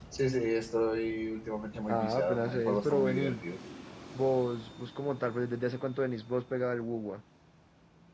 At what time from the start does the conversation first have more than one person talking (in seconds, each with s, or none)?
1.9 s